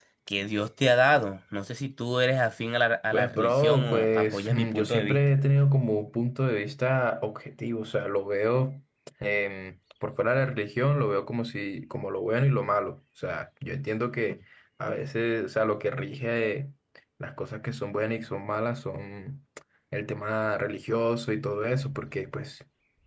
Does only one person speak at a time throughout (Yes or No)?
No